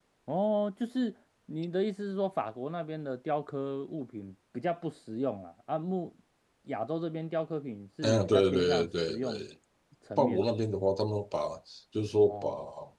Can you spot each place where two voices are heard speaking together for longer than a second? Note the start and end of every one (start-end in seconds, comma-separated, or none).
8.0-9.5